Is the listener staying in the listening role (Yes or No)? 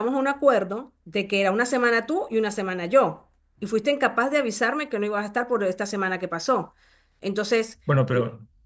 Yes